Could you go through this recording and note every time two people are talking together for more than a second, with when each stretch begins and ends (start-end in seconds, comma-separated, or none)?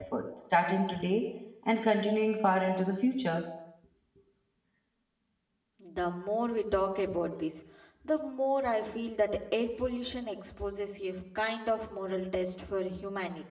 none